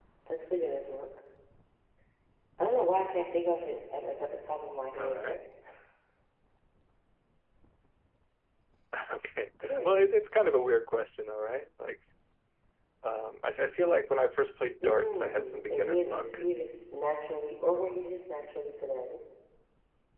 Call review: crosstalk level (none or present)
present